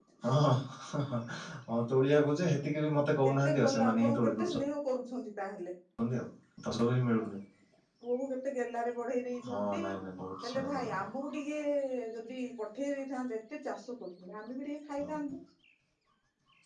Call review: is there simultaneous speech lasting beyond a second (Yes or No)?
Yes